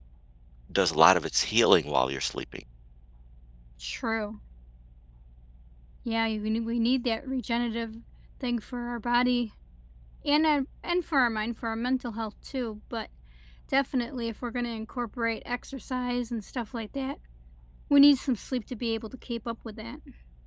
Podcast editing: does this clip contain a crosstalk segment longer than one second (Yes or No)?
No